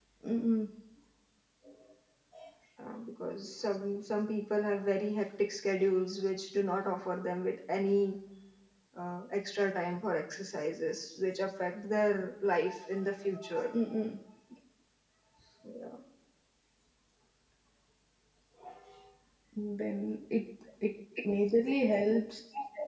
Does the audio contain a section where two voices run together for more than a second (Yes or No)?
No